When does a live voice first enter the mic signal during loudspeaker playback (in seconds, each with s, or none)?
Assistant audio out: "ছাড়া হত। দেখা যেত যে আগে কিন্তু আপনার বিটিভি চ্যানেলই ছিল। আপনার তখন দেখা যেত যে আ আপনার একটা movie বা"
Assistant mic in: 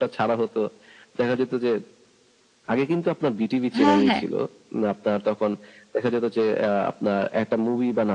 3.8 s